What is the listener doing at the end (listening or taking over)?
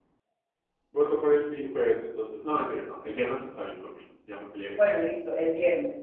taking over